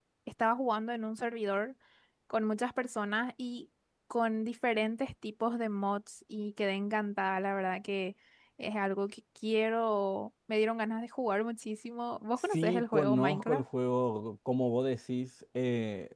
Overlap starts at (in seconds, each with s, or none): 12.4 s